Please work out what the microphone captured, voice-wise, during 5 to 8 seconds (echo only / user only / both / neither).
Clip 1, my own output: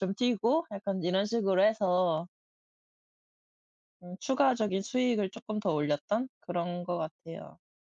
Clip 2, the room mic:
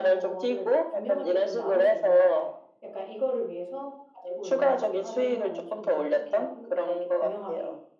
both